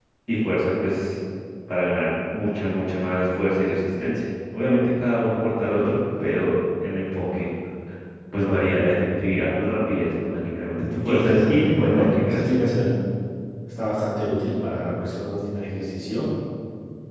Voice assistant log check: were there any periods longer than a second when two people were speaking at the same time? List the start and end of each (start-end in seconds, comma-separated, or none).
11.1-12.5